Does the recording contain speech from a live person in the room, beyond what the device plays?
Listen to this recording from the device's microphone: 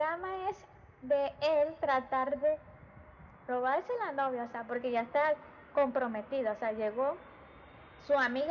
No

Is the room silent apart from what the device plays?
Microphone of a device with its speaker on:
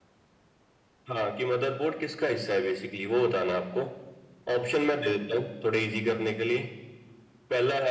Yes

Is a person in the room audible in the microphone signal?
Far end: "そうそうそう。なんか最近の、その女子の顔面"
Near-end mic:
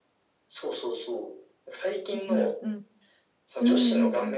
Yes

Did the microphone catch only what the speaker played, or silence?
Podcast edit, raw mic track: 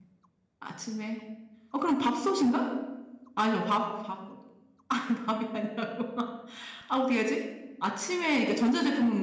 No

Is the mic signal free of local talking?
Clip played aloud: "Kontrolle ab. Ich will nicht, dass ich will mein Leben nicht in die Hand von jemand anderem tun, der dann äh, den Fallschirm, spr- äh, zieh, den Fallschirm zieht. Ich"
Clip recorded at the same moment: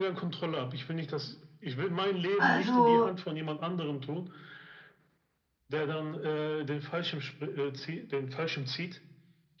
No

